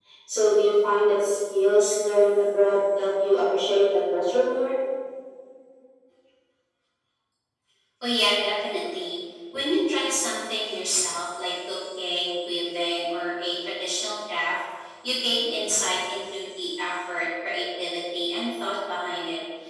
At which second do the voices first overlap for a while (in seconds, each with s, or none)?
none